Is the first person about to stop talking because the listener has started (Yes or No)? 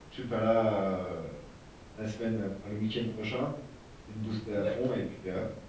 No